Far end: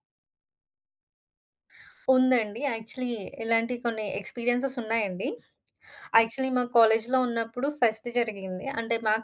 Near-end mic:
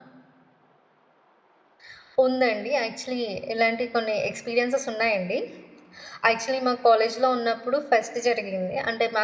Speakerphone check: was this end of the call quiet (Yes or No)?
Yes